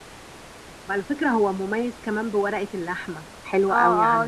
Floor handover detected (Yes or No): Yes